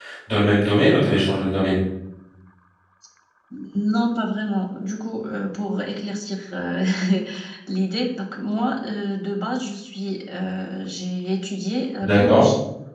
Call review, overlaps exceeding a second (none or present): none